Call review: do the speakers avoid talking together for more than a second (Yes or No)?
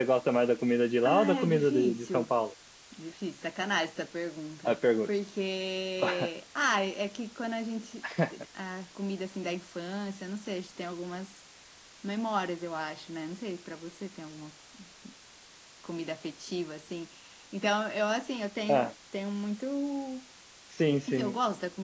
No